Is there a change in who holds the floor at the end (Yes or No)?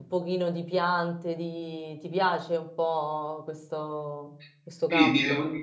Yes